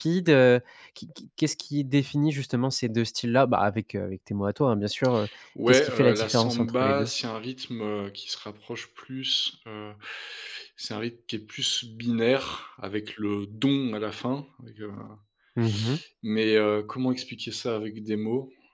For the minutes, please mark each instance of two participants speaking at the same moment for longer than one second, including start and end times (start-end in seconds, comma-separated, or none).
5.7-7.1